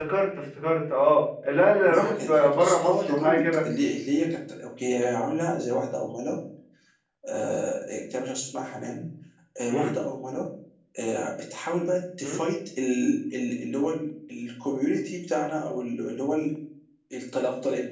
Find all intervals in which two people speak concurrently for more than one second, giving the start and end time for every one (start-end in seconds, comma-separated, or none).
1.8-3.6